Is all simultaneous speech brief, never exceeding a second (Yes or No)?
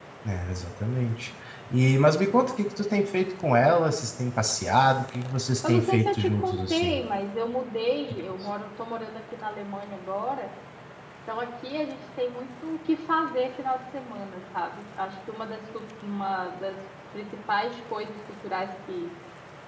No